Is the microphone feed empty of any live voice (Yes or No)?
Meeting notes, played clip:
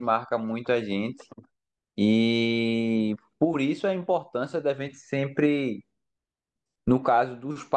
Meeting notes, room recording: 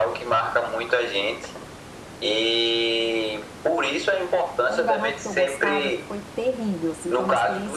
No